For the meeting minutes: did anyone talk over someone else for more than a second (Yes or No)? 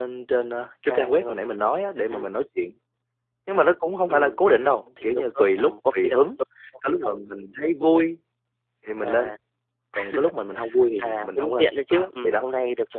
Yes